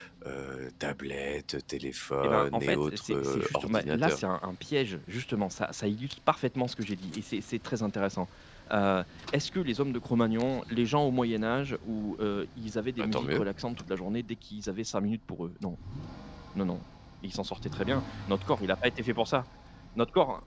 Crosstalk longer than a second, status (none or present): present